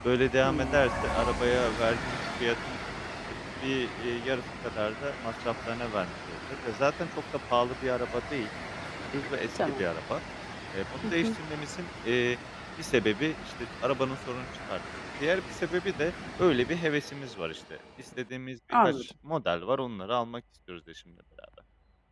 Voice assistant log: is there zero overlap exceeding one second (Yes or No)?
Yes